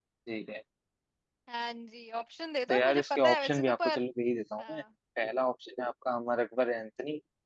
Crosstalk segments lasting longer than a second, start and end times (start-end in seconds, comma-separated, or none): 2.7-4.0